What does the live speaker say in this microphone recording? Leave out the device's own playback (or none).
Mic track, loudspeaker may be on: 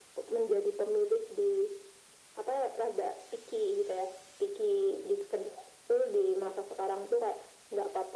none